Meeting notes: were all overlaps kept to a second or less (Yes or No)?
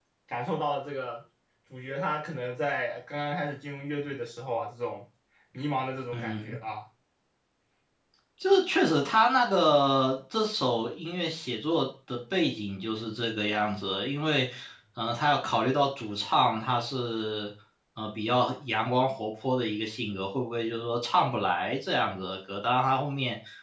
Yes